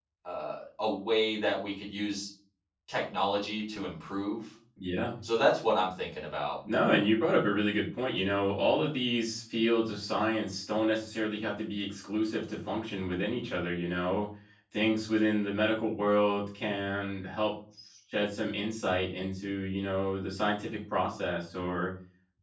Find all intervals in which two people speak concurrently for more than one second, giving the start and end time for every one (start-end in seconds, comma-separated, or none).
none